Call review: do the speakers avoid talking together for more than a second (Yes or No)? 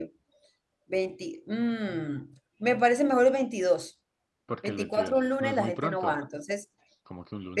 No